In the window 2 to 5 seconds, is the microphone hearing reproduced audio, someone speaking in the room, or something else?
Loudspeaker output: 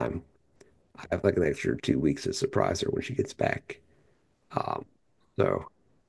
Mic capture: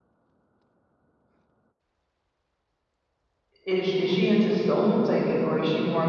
user only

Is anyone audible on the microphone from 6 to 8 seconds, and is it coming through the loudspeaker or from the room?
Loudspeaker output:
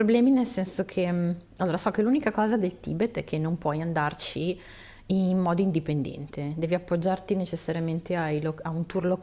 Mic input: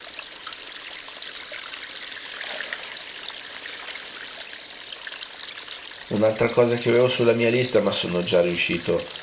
user only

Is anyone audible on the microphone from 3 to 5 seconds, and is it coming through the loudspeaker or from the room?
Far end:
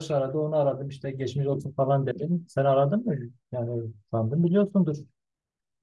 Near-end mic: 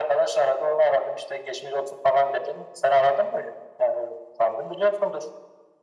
echo only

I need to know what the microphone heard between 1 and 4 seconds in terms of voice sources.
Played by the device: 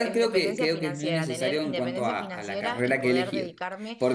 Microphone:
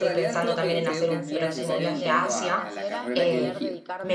both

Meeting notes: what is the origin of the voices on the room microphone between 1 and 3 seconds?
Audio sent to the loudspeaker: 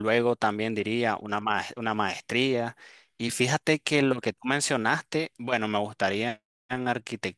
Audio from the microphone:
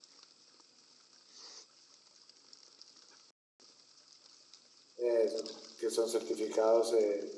neither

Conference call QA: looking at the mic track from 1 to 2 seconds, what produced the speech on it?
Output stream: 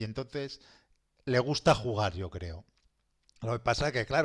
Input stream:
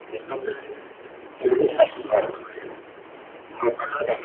both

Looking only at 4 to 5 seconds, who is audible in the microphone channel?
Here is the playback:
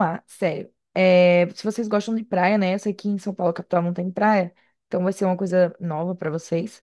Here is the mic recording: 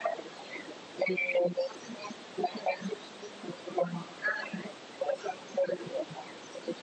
echo only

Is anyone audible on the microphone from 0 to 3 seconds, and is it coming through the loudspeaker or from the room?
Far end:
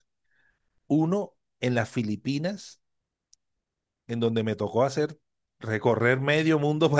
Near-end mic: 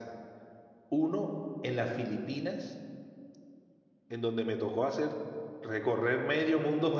echo only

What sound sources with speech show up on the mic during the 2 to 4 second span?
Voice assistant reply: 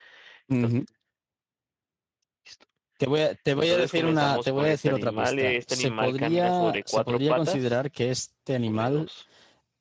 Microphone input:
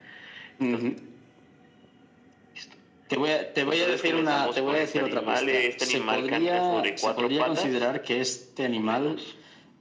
echo only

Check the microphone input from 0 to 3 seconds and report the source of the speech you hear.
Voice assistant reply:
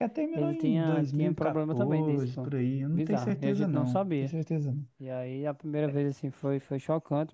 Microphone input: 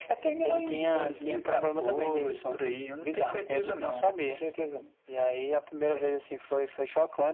echo only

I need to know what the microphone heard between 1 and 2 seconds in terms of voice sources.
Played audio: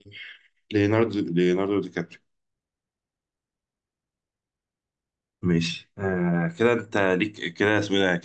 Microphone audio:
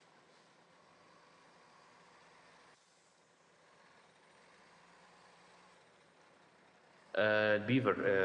neither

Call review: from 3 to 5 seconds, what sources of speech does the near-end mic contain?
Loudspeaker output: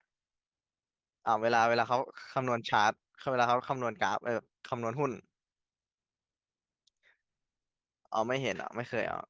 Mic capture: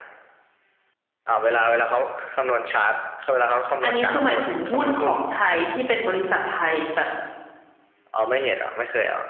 both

